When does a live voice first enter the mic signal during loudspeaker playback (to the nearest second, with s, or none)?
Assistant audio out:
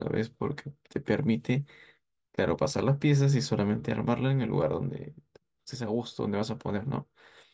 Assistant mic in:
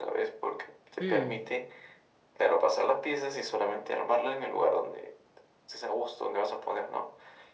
1 s